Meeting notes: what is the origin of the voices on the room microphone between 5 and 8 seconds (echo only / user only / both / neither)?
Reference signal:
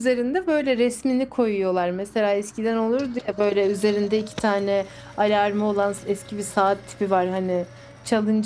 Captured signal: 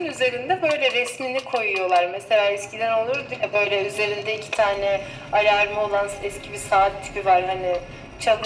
echo only